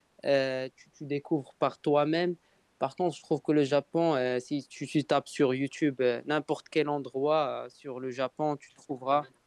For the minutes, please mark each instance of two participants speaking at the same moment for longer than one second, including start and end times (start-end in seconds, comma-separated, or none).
none